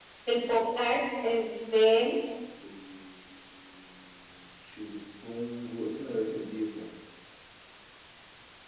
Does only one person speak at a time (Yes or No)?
Yes